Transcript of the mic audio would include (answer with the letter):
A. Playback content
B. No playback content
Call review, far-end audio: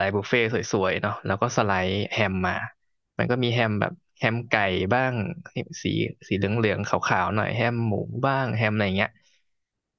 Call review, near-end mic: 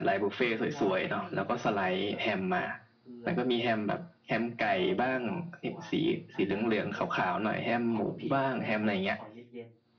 A